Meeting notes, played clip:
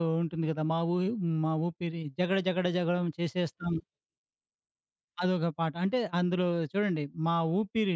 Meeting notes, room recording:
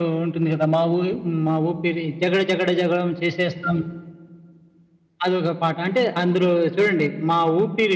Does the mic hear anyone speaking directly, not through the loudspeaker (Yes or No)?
No